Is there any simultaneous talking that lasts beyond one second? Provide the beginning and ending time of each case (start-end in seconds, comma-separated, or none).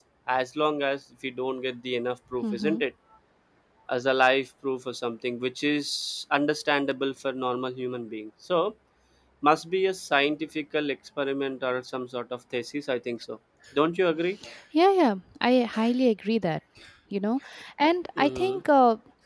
none